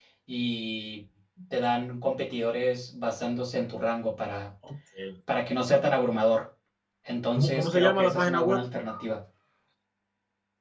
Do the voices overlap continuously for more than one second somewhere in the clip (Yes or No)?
Yes